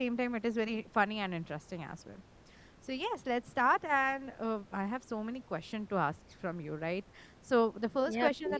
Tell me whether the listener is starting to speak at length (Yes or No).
No